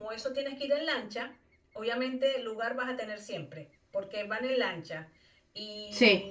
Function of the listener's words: listening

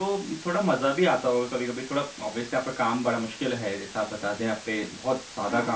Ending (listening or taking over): listening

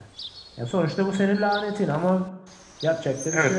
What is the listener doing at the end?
taking over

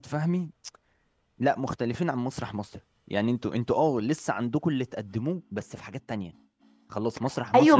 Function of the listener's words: taking over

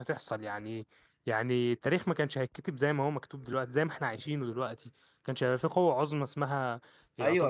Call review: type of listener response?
taking over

